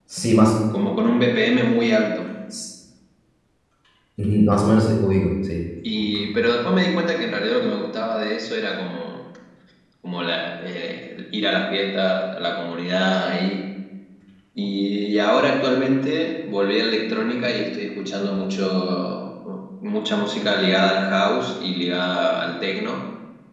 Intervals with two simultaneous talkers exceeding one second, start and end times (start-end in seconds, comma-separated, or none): none